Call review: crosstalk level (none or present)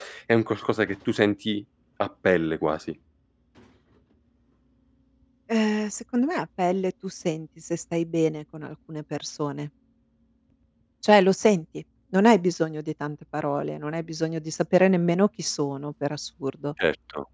none